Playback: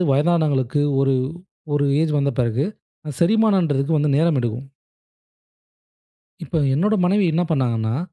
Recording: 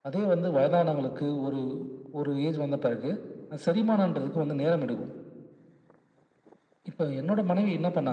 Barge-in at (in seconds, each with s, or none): none